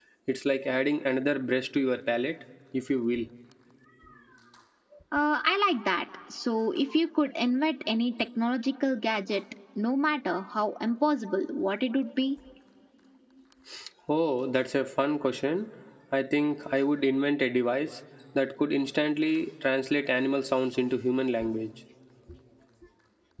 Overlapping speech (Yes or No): No